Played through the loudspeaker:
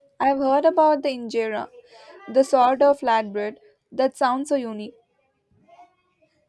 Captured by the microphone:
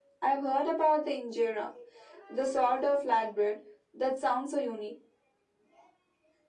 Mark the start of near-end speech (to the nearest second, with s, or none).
none